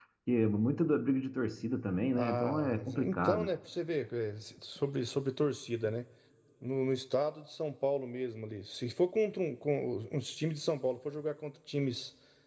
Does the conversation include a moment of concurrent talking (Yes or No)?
Yes